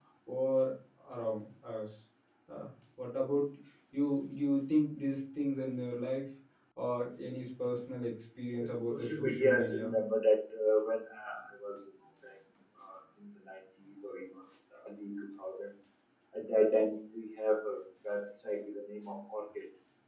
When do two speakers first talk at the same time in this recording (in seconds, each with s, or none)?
8.6 s